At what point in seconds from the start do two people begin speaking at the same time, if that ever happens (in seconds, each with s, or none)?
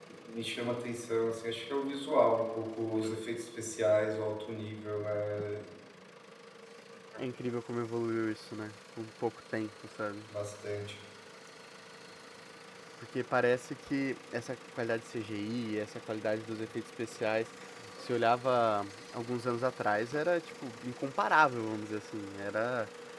none